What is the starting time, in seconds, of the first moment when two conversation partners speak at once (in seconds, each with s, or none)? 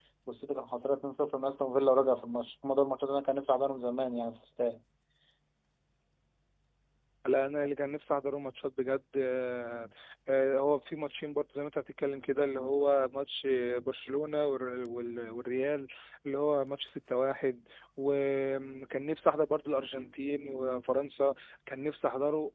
none